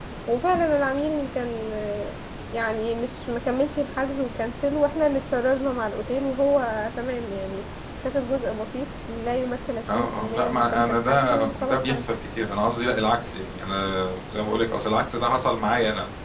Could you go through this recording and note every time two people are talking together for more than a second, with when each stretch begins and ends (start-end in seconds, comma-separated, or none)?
9.9-12.2